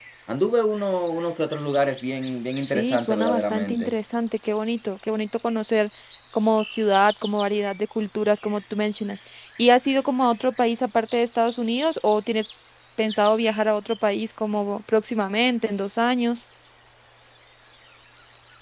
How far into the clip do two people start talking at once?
2.6 s

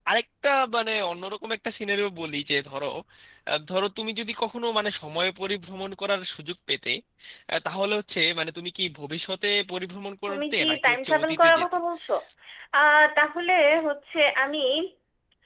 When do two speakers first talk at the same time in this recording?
10.3 s

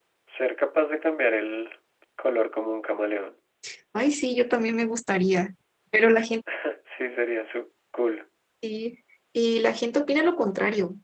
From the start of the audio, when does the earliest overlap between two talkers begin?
none

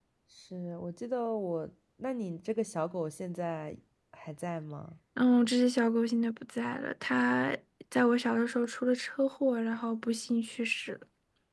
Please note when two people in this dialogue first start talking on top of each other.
none

